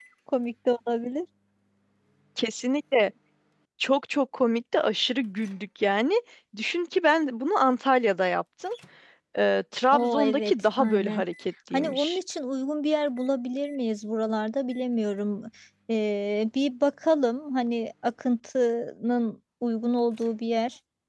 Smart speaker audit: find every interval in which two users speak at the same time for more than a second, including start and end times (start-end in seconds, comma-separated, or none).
9.9-11.2